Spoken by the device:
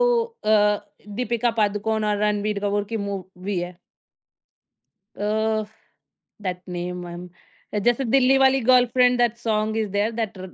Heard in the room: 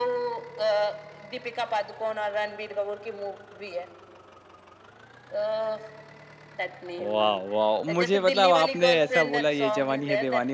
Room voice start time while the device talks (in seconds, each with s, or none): 7.0 s